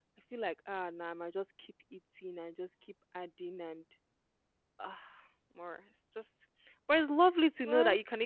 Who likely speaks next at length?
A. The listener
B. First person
B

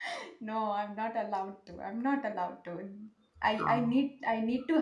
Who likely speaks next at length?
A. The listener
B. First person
B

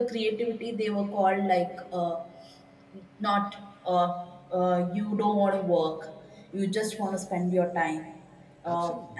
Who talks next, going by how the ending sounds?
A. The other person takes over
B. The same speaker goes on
B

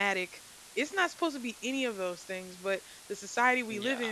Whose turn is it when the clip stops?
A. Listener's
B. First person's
B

